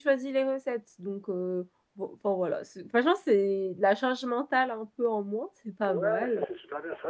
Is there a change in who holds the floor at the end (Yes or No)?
Yes